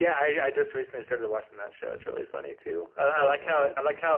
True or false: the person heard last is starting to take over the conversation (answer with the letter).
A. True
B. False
B